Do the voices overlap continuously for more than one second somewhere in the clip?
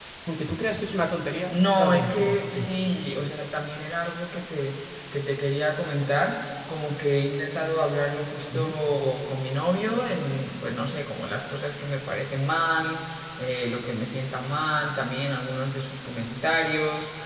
Yes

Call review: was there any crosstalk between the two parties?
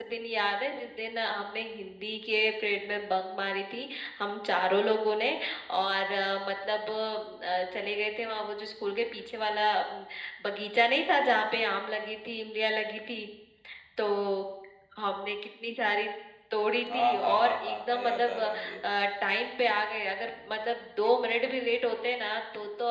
Yes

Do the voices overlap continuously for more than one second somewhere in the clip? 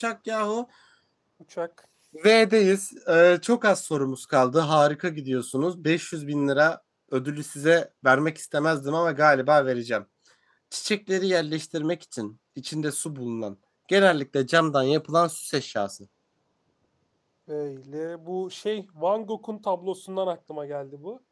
No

